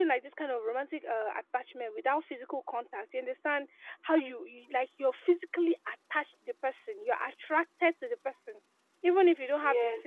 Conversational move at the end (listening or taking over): taking over